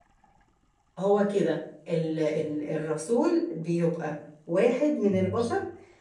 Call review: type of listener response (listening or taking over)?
listening